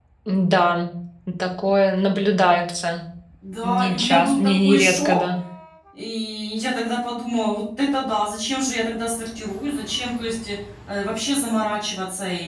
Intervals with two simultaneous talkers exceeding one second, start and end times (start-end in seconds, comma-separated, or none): 3.6-5.2